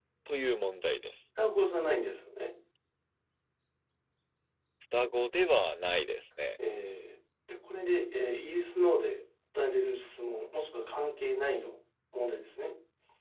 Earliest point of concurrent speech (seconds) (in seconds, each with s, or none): none